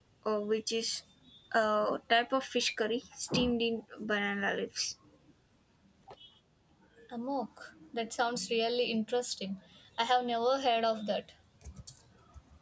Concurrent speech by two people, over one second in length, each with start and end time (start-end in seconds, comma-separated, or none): none